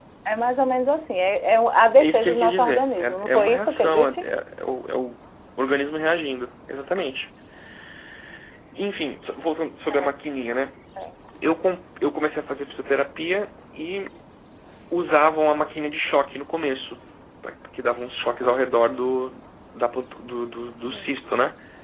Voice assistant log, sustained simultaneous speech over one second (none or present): present